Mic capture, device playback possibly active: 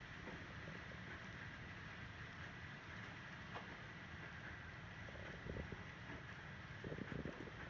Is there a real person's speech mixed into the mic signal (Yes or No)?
No